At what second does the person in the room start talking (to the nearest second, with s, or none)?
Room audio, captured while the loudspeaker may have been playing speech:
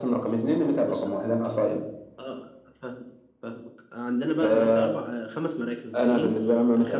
none